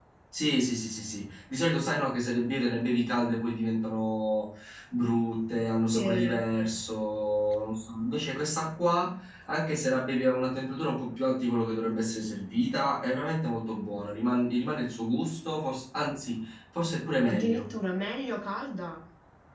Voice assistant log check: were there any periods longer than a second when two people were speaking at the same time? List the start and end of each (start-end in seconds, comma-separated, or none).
none